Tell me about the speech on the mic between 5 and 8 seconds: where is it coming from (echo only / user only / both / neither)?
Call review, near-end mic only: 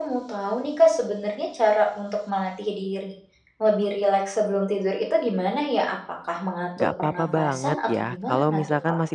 both